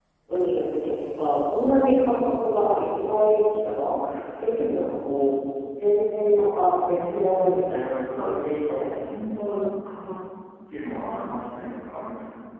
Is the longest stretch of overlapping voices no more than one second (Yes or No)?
No